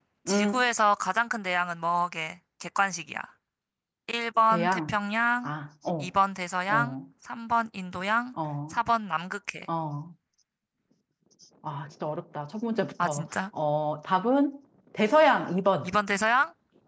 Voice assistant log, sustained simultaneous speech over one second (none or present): none